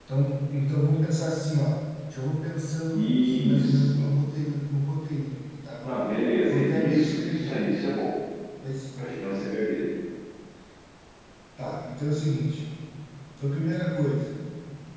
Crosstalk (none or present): present